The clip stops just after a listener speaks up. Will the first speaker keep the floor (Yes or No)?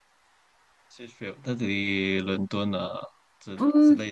No